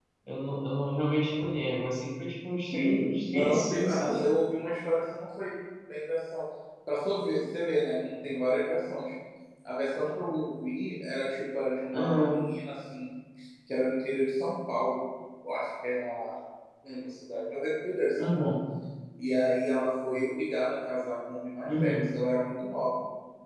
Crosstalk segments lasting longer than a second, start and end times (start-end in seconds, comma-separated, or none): 2.7-4.2